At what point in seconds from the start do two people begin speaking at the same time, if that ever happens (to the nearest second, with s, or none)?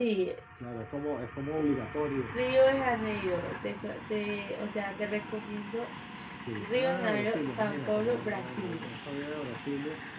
7 s